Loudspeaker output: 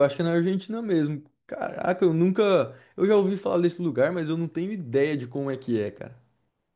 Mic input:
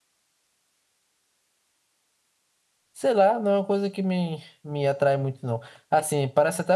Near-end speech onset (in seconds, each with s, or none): 2.9 s